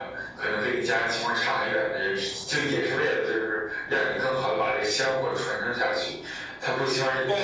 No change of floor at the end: No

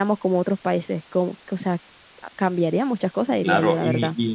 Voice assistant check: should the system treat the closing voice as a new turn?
Yes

